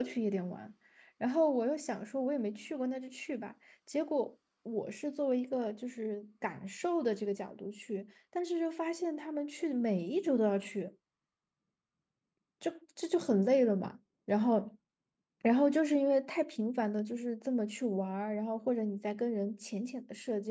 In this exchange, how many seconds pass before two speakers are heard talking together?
none

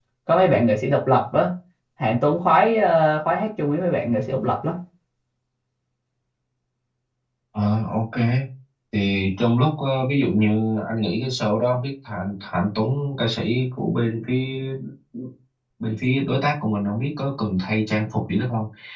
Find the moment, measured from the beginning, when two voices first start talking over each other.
none

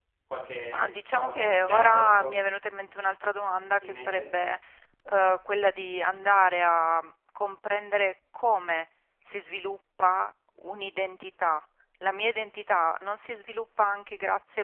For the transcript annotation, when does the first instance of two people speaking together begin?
0.7 s

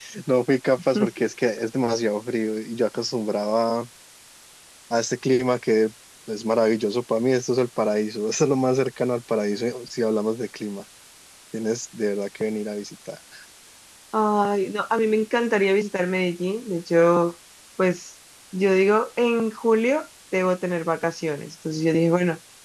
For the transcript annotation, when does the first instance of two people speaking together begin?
none

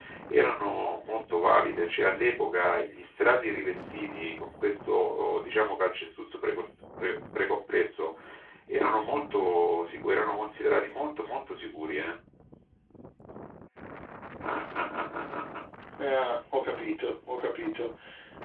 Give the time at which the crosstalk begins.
none

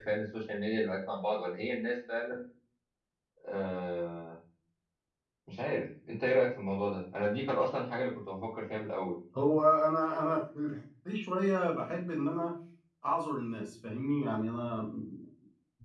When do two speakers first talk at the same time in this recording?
none

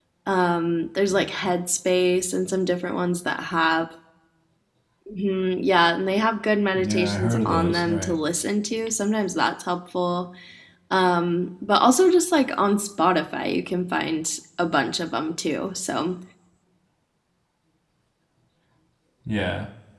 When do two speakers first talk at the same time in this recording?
6.8 s

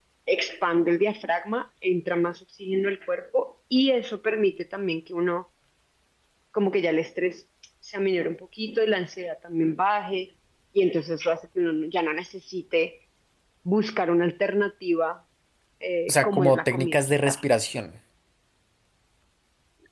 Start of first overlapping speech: 16.1 s

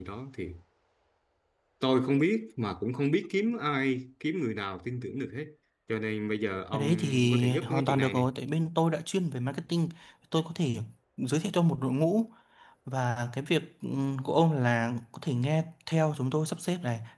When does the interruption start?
6.7 s

